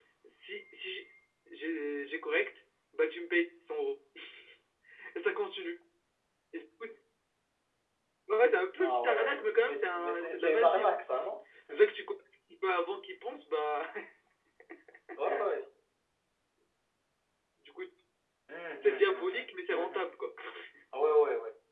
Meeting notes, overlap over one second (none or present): present